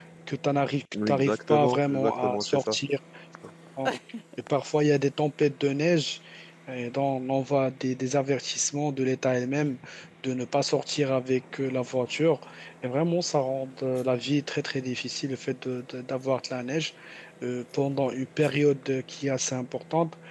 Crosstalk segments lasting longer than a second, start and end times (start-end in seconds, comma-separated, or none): 1.1-2.8